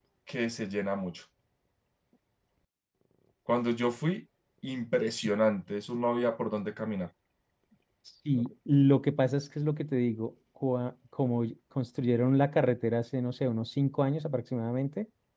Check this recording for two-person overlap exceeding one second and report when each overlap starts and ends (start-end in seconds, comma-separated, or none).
none